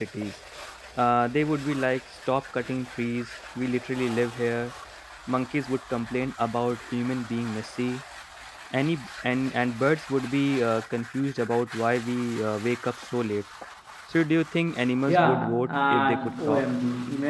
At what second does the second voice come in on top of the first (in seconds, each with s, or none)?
15.1 s